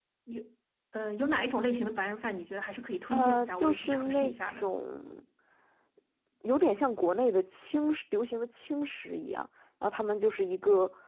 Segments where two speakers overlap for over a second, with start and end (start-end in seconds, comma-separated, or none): 3.1-4.7